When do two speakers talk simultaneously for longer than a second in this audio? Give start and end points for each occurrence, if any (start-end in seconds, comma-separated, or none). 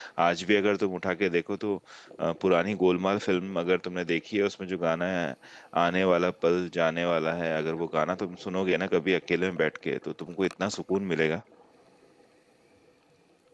none